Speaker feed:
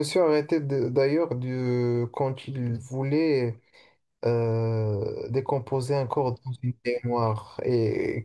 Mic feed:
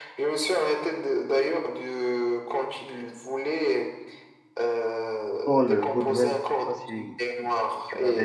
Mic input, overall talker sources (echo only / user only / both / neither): both